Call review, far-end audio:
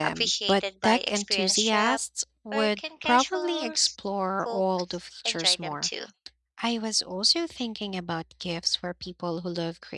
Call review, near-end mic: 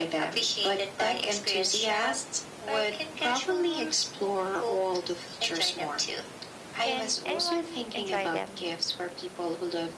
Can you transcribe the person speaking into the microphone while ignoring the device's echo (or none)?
can anyone enjoy them?